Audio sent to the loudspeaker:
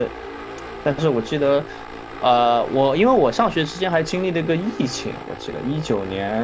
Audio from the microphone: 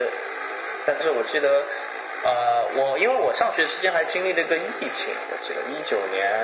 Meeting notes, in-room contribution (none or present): none